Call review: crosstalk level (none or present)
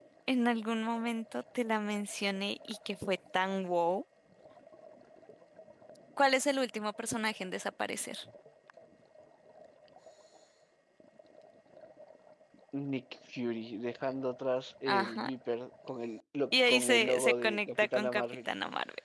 present